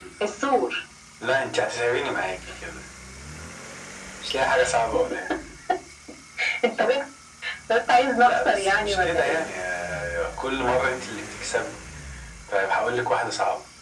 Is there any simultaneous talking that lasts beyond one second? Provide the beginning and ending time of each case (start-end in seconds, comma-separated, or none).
8.2-9.4